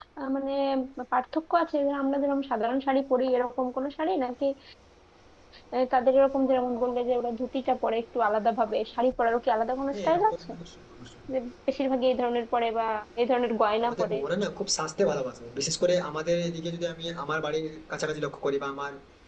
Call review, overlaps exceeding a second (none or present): none